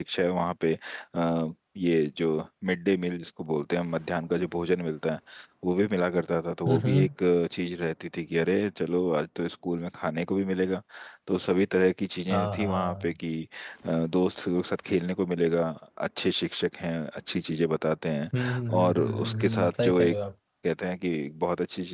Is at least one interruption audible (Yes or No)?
Yes